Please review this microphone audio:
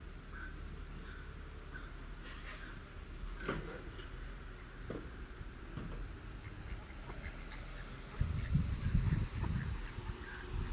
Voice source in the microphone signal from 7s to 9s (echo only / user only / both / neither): neither